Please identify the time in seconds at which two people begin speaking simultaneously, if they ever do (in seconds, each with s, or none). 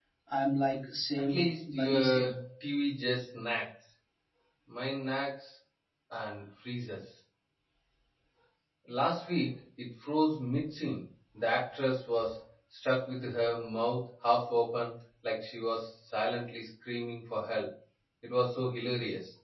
1.2 s